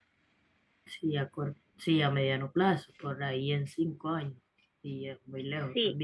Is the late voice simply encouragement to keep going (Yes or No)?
No